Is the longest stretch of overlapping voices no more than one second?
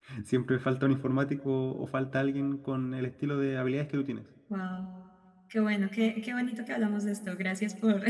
Yes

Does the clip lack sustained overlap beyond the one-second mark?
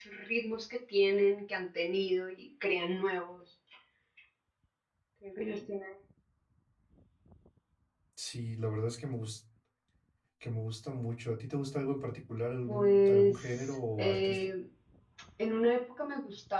No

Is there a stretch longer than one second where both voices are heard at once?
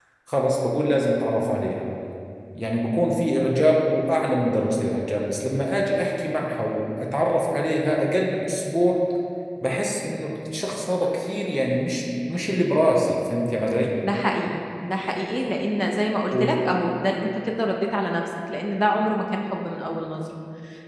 No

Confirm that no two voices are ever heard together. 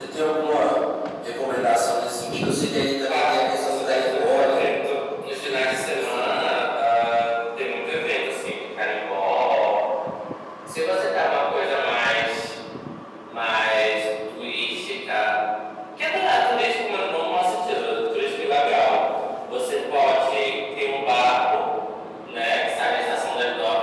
No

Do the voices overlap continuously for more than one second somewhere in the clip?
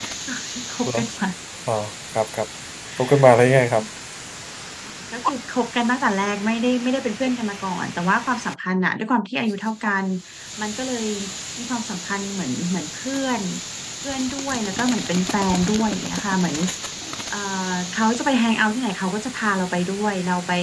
No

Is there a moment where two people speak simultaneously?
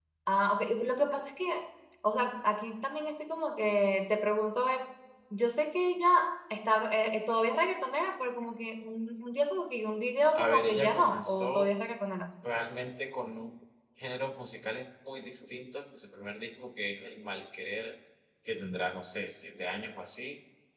Yes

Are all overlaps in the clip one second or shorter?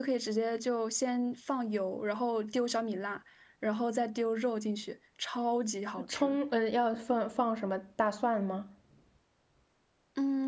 Yes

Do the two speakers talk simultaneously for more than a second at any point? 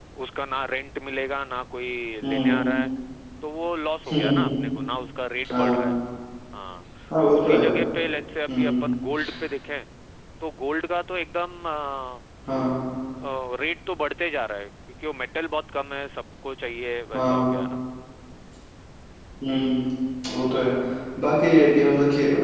No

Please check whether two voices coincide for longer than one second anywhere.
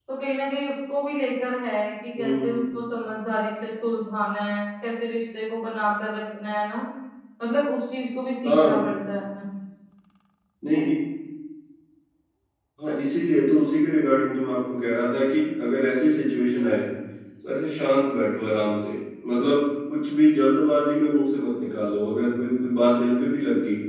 No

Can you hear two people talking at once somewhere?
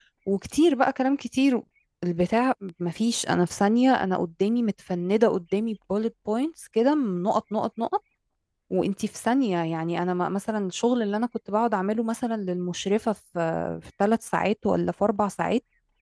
No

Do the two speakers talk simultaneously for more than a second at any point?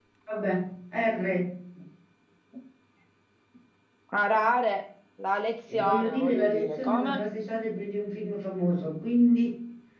Yes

